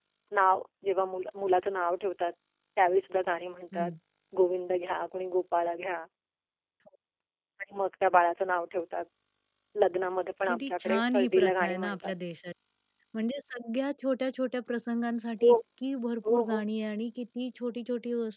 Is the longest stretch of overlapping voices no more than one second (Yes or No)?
No